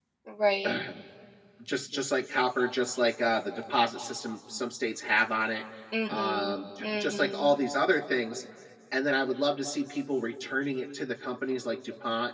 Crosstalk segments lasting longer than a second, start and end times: 6.1-7.6

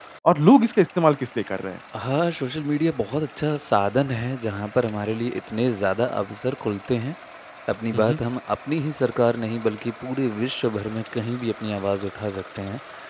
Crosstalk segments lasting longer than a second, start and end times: none

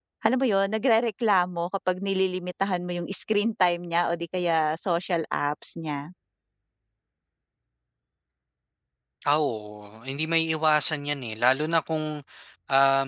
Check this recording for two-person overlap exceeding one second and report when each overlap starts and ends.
none

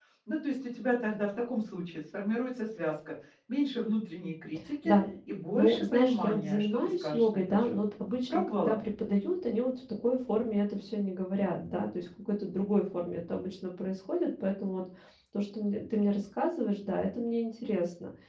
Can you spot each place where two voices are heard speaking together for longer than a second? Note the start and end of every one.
5.6-7.8

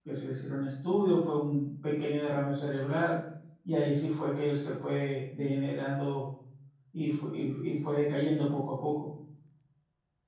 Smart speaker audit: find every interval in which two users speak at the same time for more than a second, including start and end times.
none

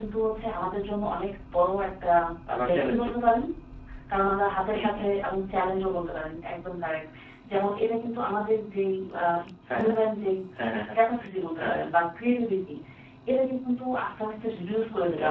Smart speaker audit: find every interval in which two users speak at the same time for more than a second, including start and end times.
none

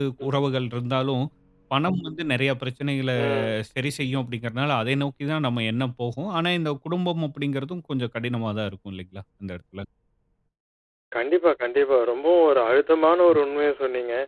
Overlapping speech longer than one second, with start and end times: none

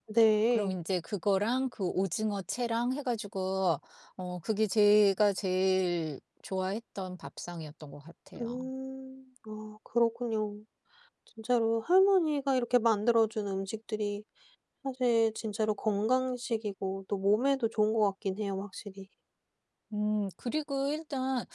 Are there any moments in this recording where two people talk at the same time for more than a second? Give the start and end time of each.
none

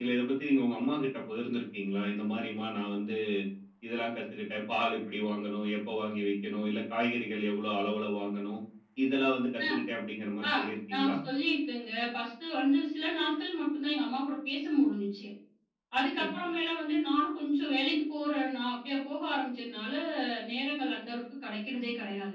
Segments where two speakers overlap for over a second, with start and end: none

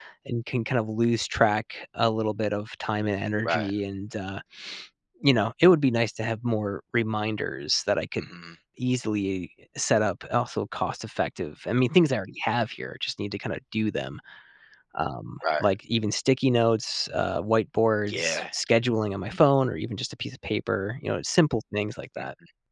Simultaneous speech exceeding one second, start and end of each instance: none

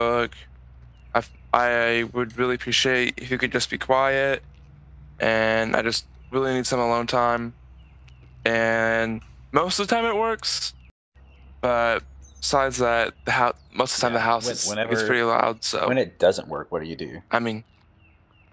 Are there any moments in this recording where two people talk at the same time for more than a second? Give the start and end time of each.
14.0-15.2

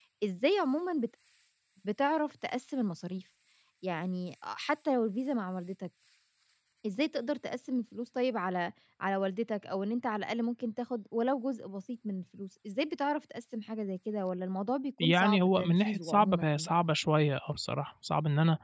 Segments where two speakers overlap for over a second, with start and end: 15.0-16.5

